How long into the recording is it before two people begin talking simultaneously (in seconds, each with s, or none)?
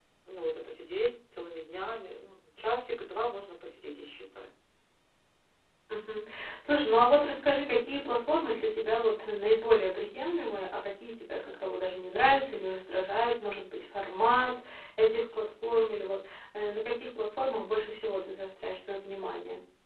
none